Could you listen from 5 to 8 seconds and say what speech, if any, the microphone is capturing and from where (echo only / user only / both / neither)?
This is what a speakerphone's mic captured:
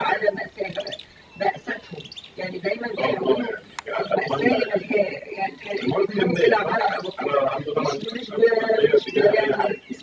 echo only